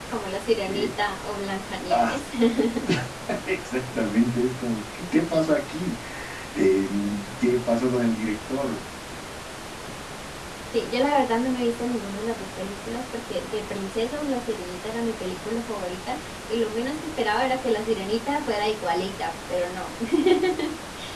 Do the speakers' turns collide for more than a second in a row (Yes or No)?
No